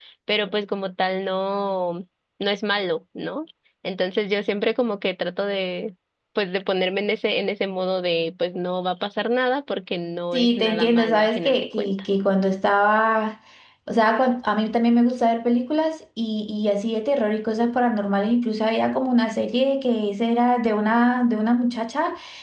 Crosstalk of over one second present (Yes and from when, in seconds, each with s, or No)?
Yes, from 10.3 s